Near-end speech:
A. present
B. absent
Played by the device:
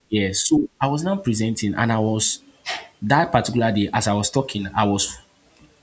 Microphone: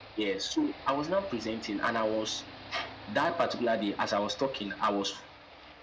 B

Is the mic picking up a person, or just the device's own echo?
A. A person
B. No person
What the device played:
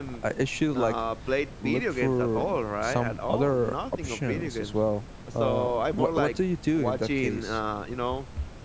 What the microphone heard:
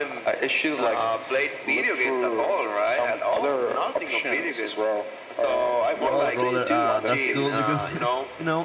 A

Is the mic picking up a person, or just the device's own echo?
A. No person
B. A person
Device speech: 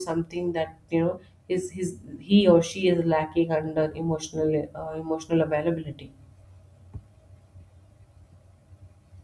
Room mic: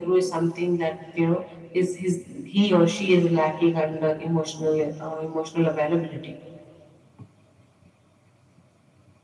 A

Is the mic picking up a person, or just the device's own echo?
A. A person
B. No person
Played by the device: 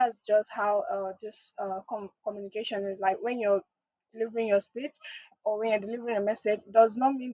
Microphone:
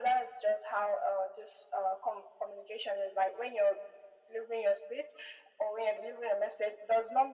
B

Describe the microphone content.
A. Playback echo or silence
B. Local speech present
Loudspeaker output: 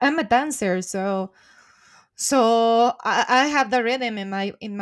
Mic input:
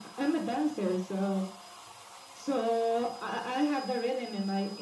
A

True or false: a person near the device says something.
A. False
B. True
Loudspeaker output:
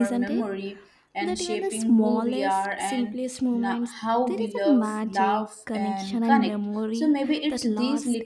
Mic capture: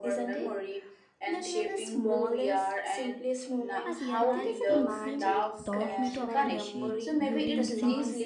B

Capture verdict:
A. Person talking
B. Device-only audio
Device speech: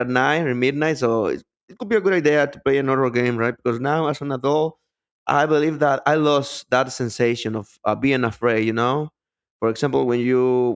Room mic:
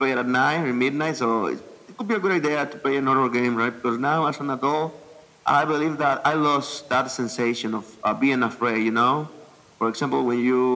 B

